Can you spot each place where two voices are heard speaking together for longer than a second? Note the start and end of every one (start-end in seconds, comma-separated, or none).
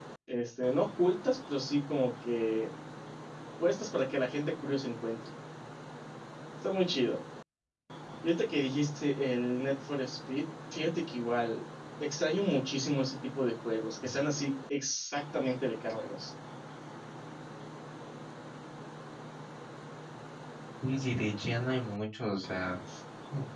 none